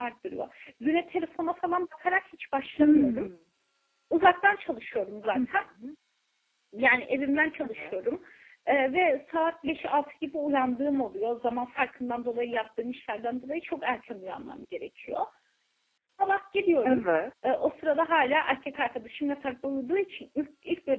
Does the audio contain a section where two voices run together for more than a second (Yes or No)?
No